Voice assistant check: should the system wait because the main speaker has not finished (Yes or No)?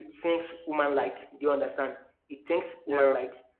Yes